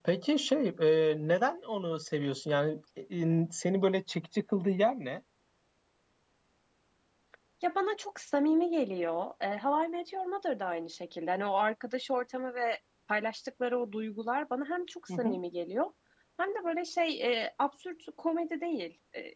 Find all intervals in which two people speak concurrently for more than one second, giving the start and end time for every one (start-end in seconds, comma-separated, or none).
none